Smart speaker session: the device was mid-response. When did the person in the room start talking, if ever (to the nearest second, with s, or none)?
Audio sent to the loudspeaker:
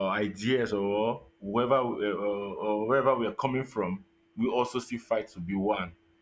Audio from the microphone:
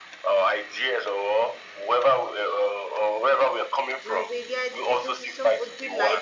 4 s